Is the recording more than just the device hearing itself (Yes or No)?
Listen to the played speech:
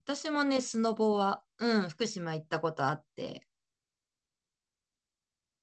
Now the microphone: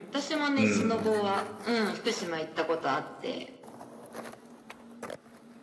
Yes